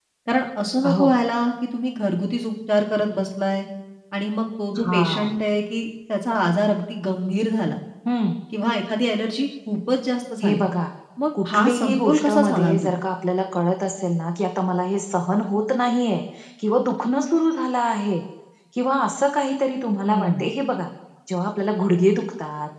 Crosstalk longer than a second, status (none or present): present